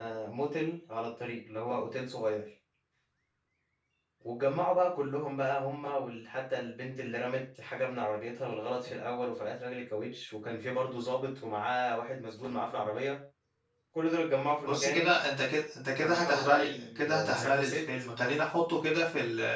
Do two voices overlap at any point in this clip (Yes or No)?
Yes